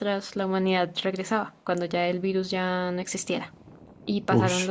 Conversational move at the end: listening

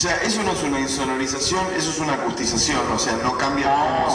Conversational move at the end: listening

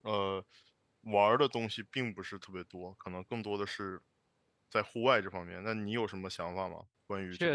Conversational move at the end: taking over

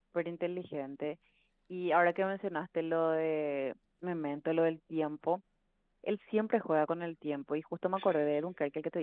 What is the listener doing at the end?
listening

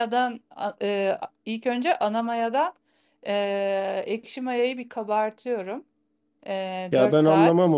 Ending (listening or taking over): taking over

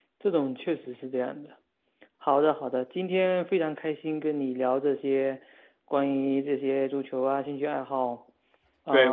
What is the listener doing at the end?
taking over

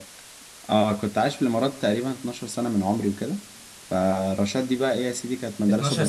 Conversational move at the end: taking over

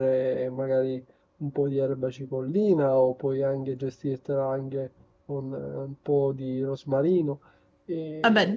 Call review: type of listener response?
listening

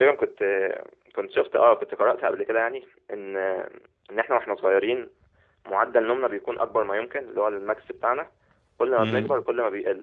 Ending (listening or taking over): listening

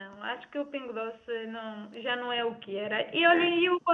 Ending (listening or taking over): listening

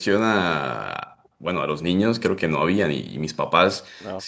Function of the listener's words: listening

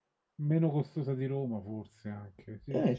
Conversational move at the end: taking over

